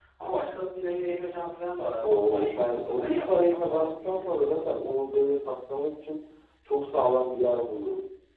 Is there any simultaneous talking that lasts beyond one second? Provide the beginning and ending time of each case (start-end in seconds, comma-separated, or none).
2.0-4.2